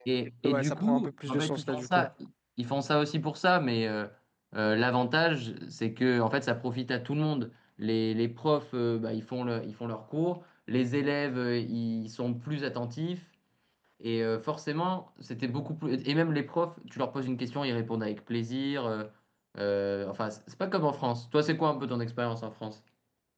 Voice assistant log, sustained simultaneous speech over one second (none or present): present